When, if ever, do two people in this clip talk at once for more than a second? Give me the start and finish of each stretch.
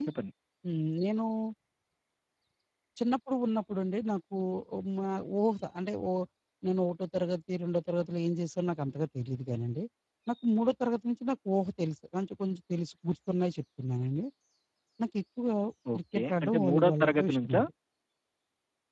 15.9-17.6

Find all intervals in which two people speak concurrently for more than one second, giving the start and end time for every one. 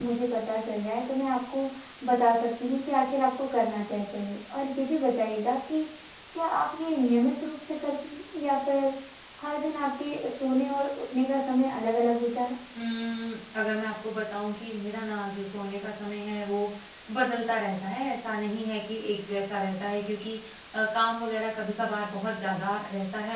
none

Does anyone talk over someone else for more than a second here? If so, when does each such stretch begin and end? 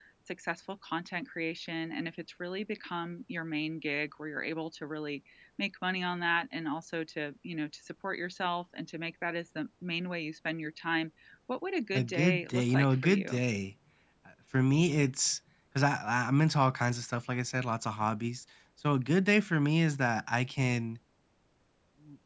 11.9-13.3

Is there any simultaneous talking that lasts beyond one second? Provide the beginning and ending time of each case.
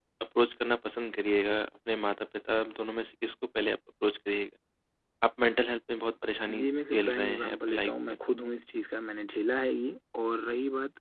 6.6-8.4

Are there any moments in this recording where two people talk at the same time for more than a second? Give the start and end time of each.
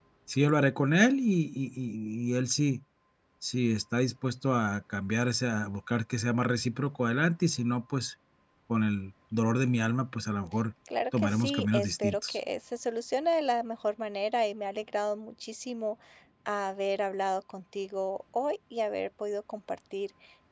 11.2-12.4

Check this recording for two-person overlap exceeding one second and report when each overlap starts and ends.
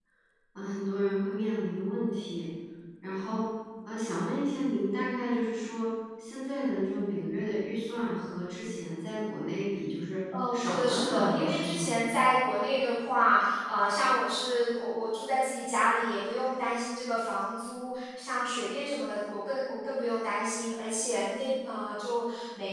10.5-11.9

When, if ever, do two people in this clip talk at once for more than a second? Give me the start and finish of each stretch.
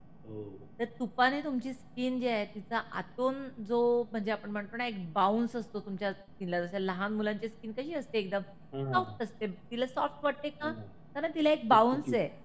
none

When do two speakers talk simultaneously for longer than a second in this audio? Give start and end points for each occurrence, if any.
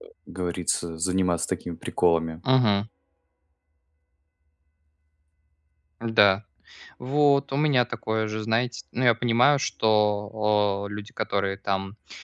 none

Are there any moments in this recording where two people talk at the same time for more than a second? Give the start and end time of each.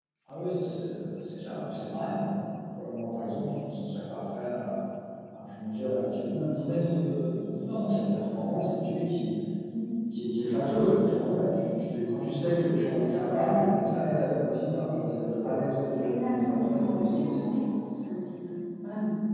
16.0-17.4

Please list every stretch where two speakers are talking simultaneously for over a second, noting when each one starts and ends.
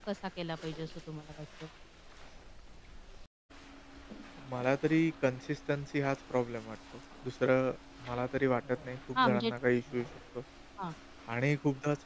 none

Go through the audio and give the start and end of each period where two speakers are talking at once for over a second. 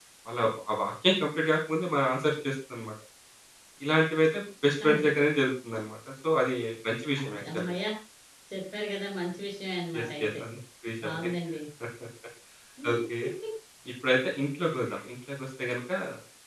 none

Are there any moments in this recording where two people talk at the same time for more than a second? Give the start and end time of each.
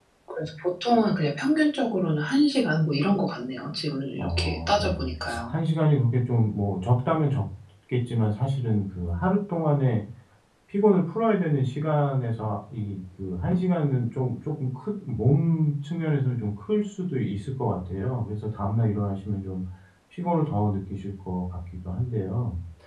4.2-5.5

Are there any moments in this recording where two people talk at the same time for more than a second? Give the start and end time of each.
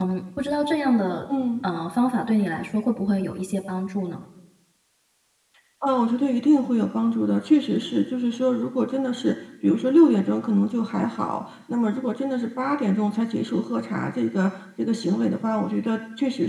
none

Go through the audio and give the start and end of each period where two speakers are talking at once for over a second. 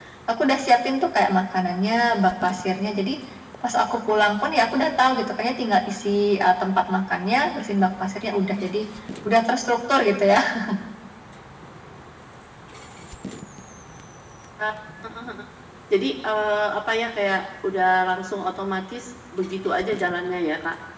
none

